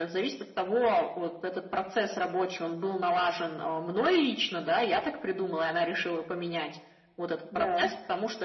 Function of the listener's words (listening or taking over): listening